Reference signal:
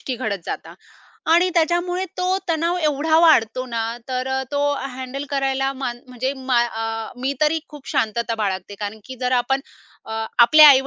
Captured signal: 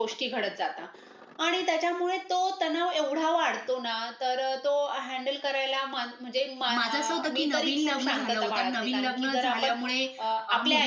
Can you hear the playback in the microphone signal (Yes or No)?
Yes